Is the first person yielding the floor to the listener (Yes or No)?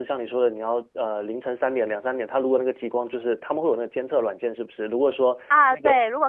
Yes